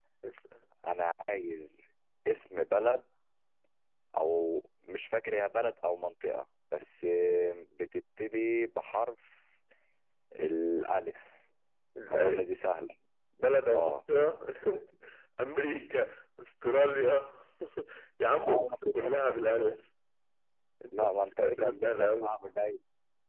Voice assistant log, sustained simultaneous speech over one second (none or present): present